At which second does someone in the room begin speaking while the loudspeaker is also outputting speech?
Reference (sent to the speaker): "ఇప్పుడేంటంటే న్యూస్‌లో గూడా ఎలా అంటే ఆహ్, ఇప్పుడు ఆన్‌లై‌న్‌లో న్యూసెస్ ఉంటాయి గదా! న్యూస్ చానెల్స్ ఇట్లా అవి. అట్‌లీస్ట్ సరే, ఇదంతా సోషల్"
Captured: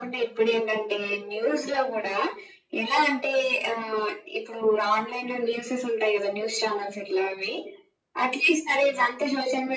none

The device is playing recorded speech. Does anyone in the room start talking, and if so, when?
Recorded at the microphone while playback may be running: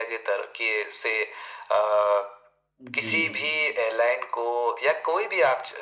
3 s

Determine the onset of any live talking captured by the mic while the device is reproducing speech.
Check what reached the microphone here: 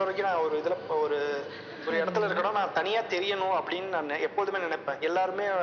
2 s

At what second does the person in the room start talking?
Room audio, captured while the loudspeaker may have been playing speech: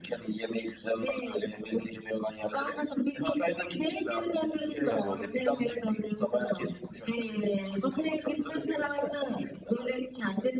5 s

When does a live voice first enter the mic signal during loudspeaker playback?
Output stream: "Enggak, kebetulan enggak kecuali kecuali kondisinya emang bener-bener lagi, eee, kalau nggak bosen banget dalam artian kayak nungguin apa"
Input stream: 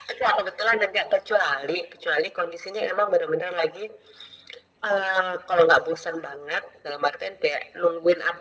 none

